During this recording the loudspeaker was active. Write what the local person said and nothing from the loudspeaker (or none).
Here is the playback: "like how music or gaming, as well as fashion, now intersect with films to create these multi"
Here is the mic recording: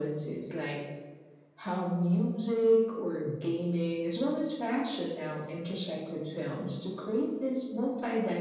none